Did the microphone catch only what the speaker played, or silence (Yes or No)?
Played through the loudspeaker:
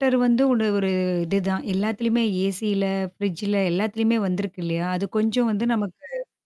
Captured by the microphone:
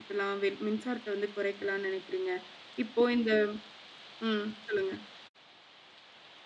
No